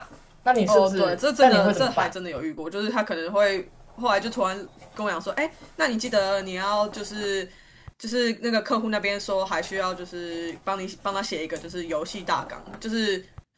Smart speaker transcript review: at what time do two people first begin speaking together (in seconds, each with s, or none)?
0.7 s